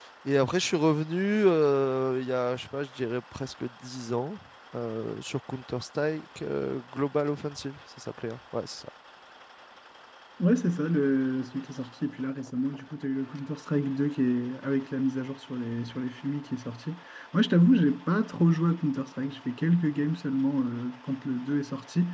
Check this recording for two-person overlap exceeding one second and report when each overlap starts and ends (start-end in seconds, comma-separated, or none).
none